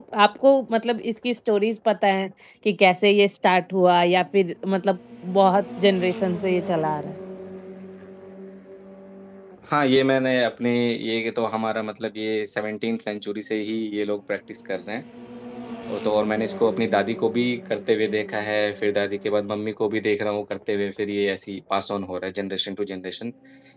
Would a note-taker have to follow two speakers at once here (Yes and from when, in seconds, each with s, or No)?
No